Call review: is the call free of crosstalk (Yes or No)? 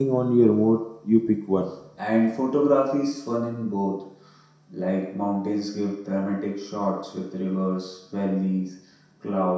Yes